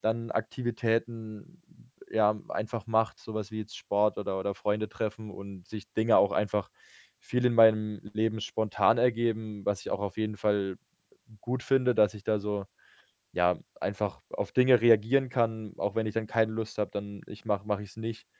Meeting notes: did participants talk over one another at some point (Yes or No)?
No